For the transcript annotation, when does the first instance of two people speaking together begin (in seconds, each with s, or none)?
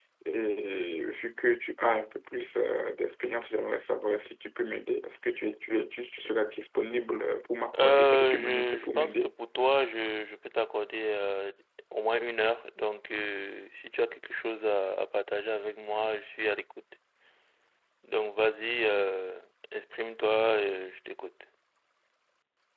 7.7 s